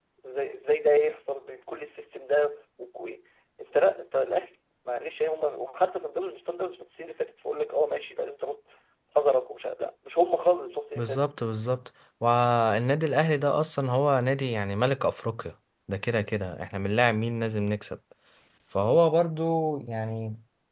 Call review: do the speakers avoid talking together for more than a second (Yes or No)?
Yes